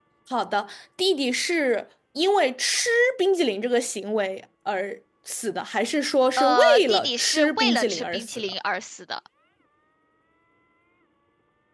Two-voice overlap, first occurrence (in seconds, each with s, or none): 6.4 s